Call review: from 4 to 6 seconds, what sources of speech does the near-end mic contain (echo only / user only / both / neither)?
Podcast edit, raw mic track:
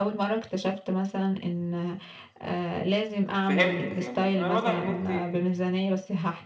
both